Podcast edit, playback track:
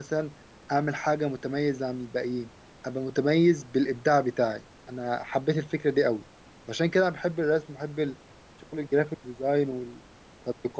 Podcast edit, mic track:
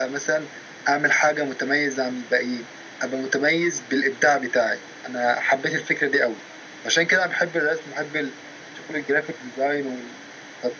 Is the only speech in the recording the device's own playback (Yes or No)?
Yes